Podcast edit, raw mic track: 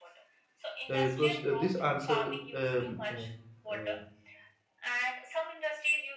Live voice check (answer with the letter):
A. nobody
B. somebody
B